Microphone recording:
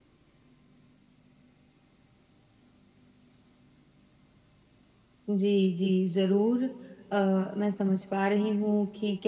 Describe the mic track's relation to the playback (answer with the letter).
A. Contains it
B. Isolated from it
B